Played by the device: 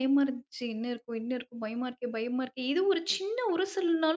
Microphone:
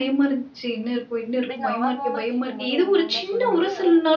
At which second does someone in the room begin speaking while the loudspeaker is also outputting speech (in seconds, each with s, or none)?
1.4 s